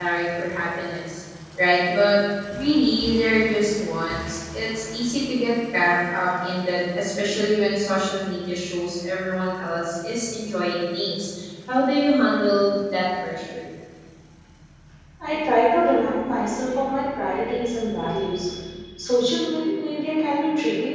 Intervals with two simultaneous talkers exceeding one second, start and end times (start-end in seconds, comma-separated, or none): none